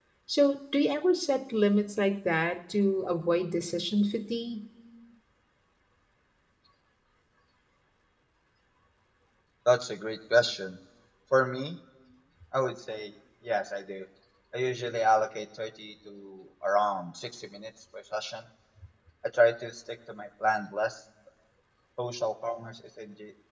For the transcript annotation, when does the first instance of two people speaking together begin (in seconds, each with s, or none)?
none